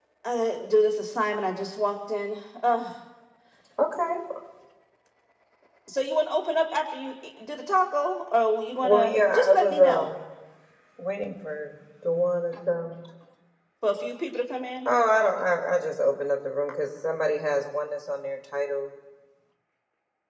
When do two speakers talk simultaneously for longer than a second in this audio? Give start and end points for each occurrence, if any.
8.8-10.1

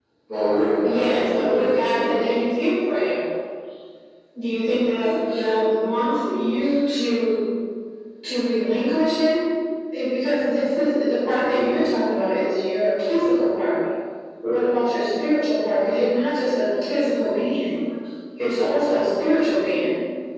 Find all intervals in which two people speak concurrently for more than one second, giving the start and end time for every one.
0.8-2.2

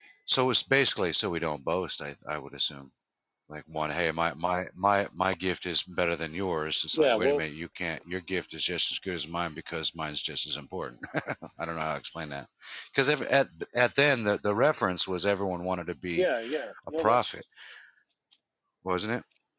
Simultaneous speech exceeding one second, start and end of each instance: none

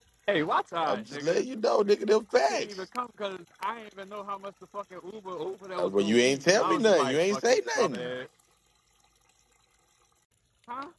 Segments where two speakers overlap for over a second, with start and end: 5.8-8.1

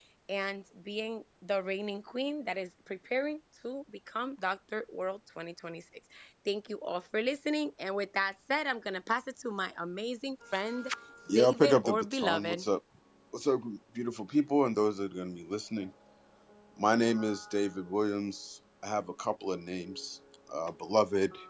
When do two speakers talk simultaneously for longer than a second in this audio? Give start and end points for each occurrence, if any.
11.3-12.6

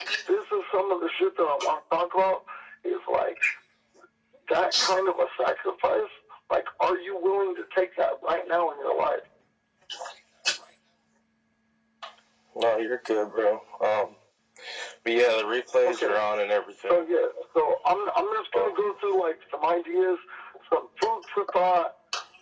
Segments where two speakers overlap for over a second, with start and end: none

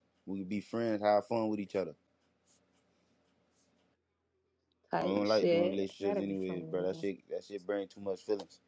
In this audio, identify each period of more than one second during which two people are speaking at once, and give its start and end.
5.0-7.0

